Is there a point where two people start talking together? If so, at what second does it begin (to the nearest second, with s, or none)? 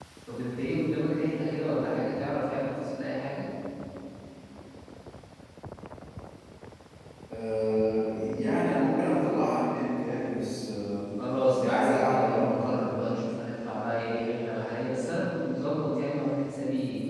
12 s